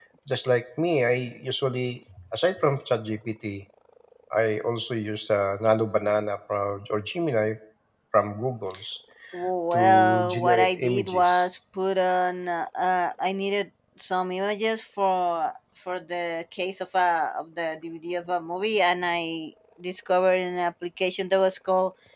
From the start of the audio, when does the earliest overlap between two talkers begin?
10 s

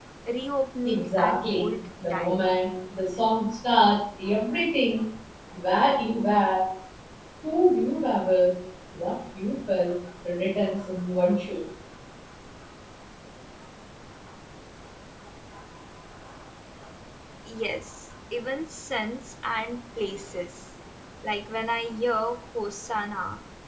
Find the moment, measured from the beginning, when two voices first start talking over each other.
1 s

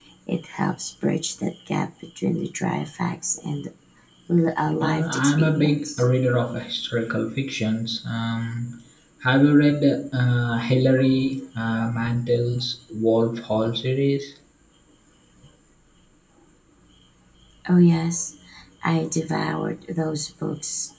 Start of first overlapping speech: 5 s

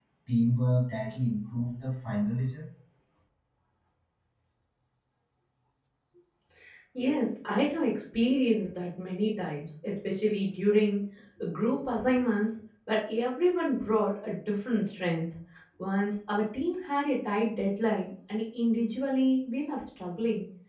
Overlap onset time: none

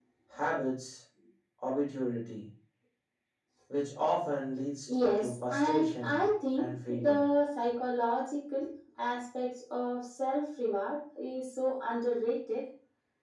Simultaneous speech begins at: 5 s

